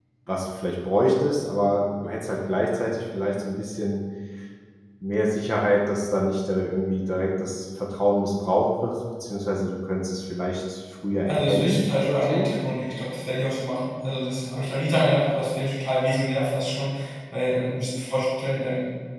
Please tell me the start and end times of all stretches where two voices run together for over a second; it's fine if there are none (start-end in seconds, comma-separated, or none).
11.2-12.5